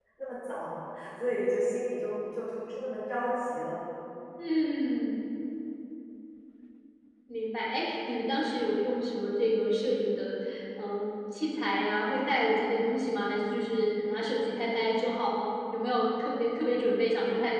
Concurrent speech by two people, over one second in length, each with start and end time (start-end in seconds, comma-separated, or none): none